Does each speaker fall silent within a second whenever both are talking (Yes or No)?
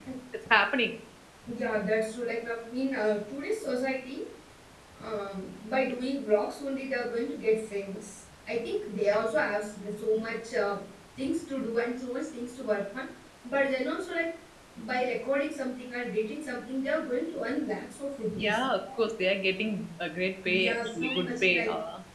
No